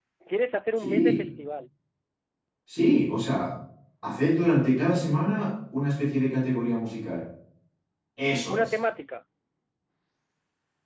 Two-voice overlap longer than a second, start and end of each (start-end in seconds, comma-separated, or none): none